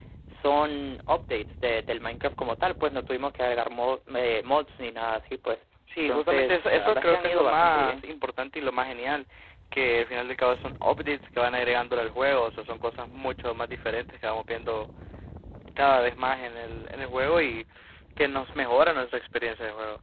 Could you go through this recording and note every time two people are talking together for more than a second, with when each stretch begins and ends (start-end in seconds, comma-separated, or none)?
6.1-8.0